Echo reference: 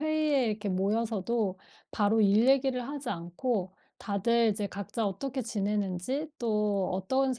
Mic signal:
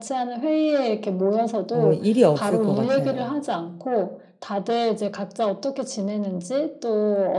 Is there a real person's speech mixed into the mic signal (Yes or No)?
Yes